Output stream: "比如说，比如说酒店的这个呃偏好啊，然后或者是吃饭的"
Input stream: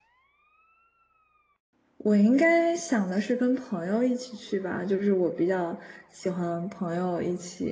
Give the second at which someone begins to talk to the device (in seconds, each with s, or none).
2.0 s